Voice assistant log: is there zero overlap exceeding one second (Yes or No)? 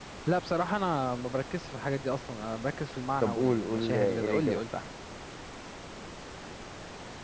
No